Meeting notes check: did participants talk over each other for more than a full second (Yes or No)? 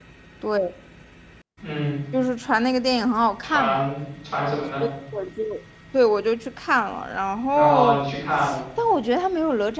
No